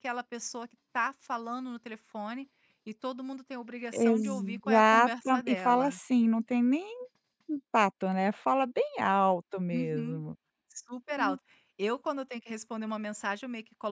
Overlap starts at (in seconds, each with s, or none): 3.9 s